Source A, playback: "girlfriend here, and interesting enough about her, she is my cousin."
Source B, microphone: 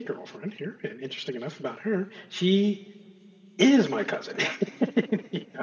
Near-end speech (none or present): none